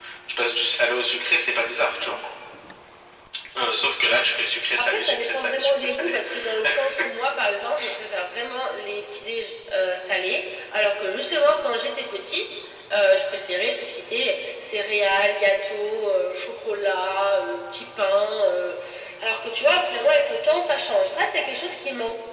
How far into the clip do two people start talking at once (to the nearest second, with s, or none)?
5 s